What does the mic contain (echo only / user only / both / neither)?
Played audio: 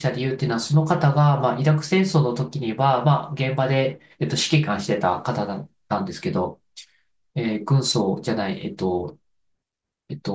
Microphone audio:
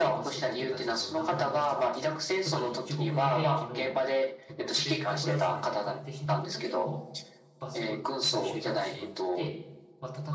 both